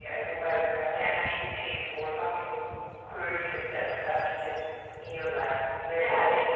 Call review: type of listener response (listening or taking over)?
taking over